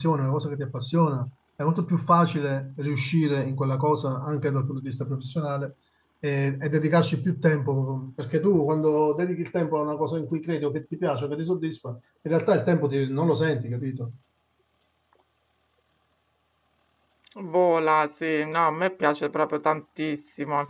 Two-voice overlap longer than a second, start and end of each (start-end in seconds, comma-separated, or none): none